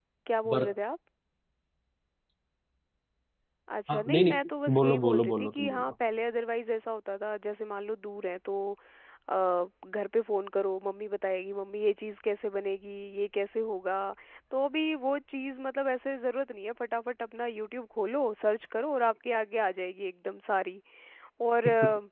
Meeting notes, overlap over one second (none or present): present